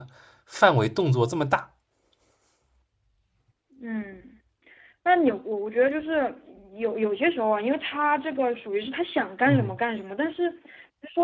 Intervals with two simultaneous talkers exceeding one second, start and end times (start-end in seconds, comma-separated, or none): none